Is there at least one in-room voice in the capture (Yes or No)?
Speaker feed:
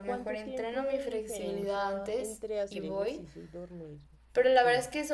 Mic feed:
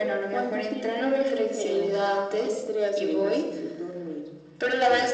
No